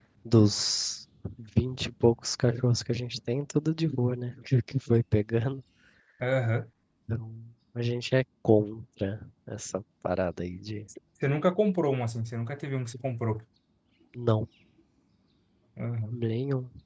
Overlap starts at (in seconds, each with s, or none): none